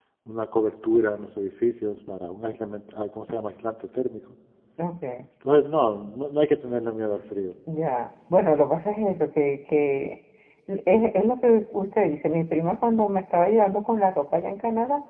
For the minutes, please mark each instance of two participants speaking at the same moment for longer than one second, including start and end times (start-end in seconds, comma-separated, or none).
none